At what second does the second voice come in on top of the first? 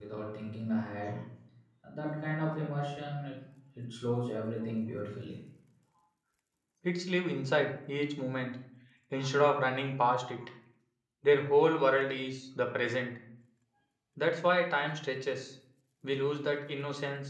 none

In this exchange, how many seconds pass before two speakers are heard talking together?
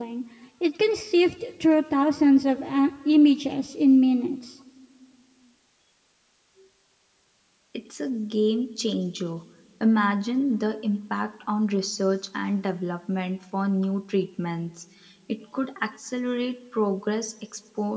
none

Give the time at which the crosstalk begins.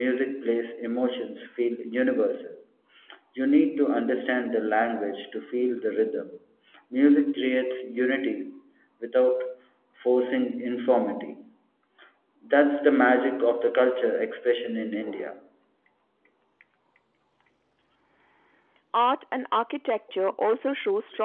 none

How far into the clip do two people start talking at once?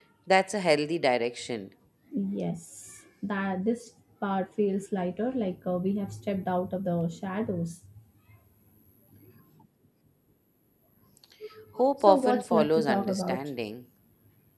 12 s

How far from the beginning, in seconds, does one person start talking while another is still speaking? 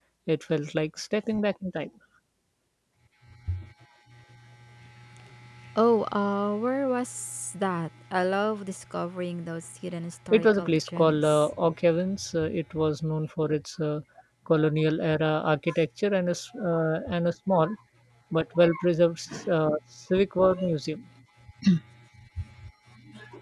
10 s

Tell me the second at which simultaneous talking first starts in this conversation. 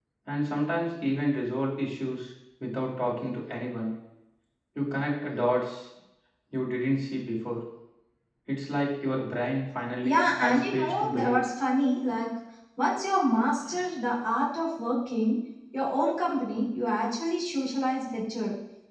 10 s

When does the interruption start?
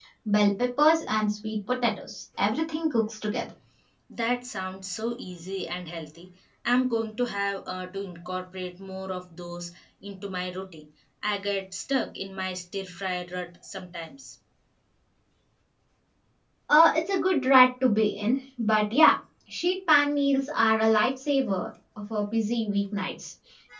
none

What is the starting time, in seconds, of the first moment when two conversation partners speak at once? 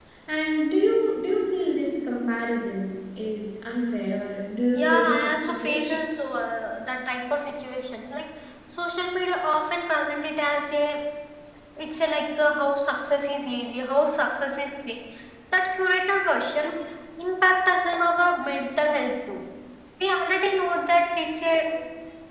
5 s

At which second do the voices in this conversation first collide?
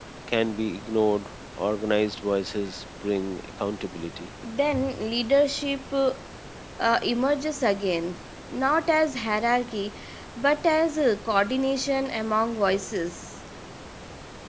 none

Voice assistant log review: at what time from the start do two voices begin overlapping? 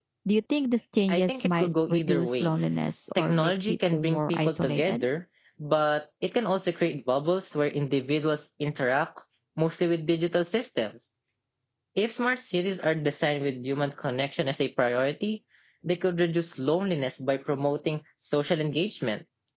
1 s

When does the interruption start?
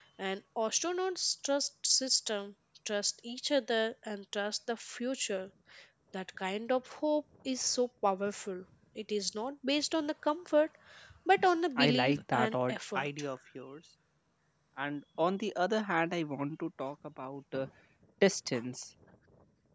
12 s

